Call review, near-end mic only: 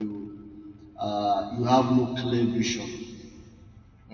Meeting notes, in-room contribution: present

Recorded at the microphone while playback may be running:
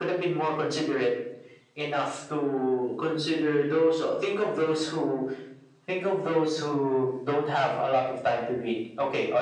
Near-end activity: none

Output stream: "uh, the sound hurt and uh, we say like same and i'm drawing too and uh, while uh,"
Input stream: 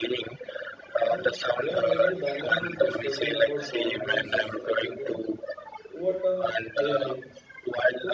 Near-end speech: present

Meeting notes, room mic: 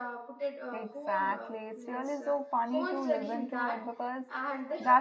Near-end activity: present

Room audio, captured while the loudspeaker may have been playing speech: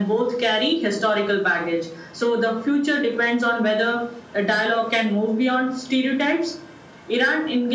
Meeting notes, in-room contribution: none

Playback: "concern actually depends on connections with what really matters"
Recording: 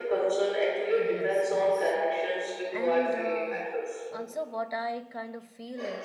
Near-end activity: present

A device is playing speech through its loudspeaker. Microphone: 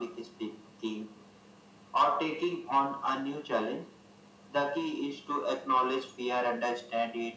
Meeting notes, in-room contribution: none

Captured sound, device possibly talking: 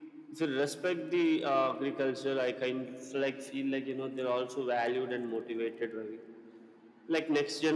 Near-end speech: none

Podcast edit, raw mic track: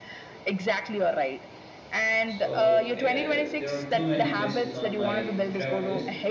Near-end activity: present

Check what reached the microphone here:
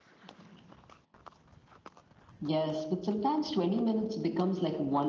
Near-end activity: none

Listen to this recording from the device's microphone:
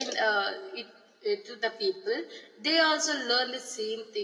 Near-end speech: none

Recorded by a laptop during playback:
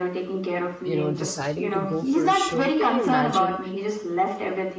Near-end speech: present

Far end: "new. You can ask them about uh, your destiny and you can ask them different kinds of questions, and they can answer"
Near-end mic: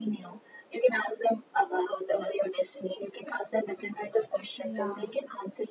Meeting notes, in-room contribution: present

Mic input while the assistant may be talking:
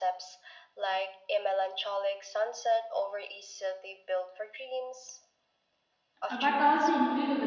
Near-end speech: present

